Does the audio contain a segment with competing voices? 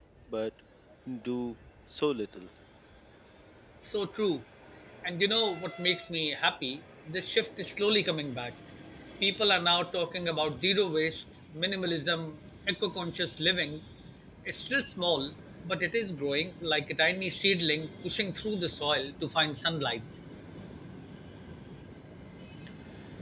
No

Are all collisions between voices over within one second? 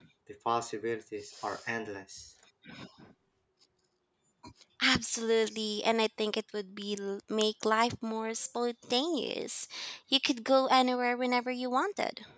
Yes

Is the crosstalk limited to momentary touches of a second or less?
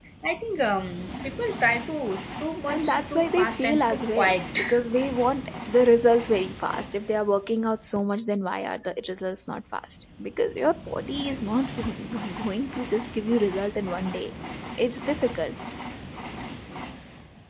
No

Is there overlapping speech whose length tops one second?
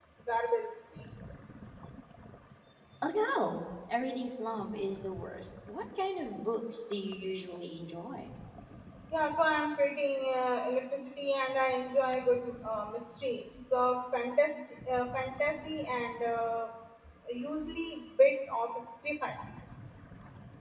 No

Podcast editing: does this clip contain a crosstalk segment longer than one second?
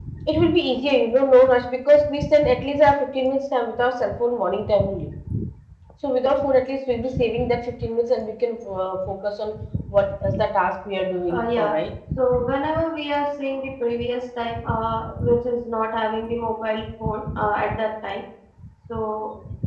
No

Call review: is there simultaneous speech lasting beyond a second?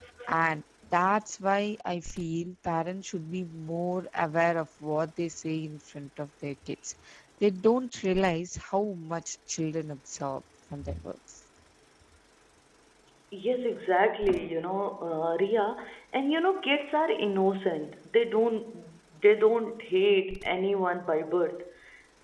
No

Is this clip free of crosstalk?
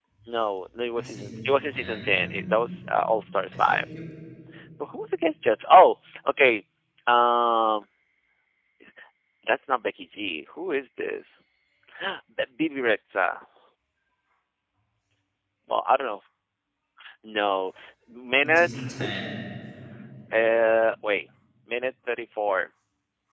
No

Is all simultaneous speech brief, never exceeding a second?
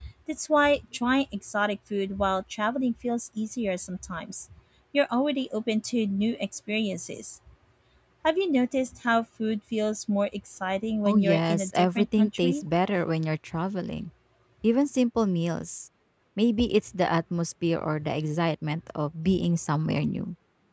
No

